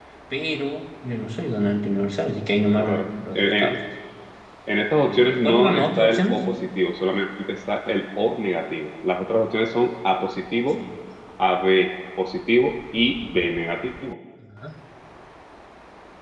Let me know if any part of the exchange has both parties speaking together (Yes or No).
Yes